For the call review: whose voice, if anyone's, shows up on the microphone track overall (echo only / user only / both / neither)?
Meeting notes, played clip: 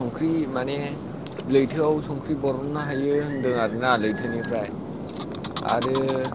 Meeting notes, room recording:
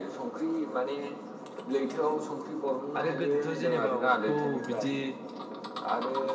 both